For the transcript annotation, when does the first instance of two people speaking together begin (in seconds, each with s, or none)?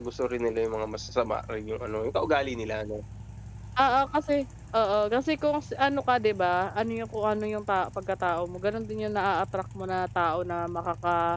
none